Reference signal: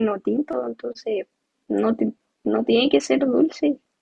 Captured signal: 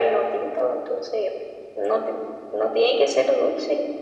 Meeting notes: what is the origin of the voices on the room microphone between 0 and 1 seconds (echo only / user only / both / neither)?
echo only